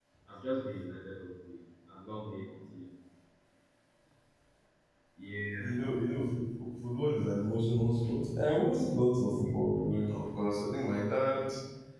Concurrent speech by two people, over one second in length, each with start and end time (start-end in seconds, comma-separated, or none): none